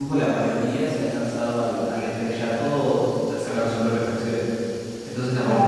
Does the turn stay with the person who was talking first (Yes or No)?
Yes